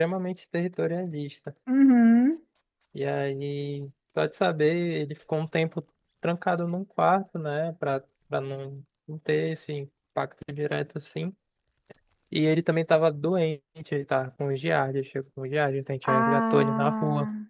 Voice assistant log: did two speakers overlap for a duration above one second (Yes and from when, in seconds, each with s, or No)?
Yes, from 16.0 s